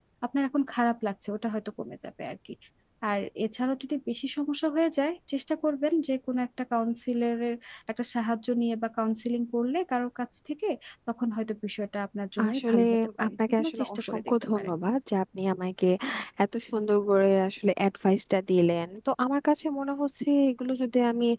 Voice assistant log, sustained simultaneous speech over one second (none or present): present